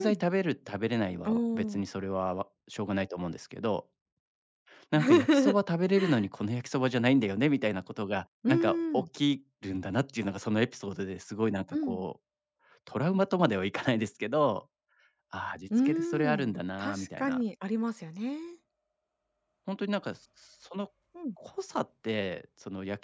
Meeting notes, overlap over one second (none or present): present